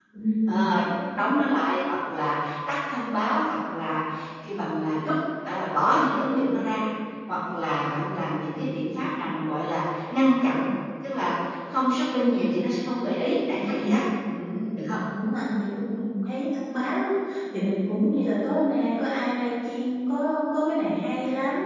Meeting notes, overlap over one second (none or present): none